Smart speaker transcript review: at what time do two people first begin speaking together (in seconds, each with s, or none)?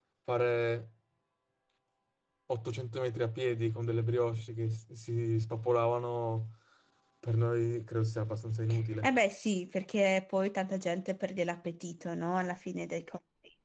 none